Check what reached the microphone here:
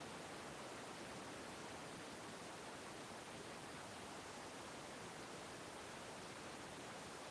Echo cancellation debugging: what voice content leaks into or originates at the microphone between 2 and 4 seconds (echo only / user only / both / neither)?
neither